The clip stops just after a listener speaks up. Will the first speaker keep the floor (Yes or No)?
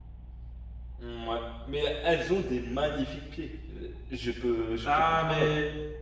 No